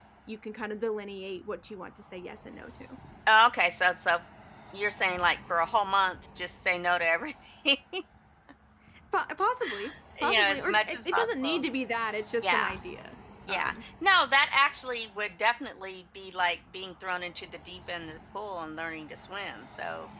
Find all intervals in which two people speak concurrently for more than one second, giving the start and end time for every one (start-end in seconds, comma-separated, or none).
10.2-11.6